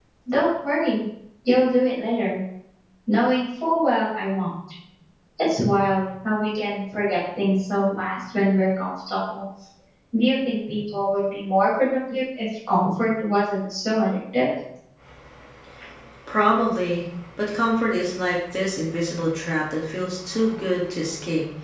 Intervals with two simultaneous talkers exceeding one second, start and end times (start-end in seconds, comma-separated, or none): none